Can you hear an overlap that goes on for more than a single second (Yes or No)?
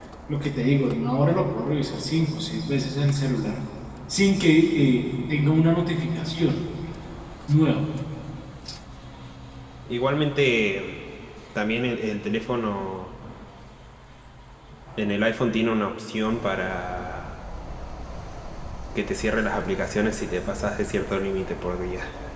No